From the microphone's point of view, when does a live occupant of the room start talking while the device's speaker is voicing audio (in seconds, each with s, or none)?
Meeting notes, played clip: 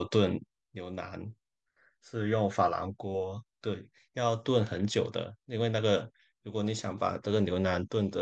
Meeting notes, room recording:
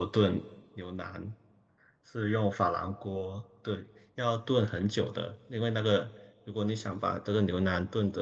none